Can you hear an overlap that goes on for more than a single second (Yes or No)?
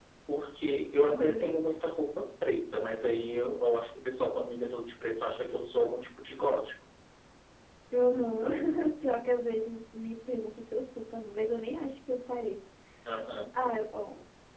No